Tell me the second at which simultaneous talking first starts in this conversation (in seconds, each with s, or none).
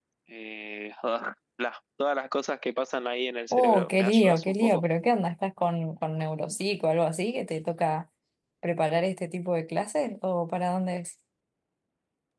3.5 s